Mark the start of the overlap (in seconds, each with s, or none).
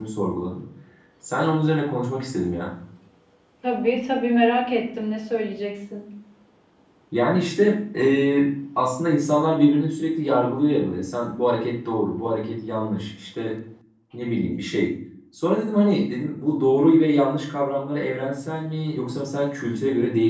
none